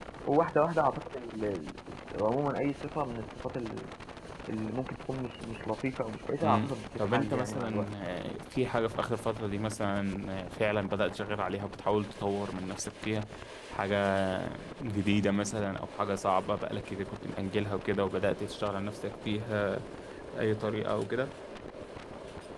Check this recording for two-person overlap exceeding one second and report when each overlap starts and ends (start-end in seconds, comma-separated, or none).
6.4-7.9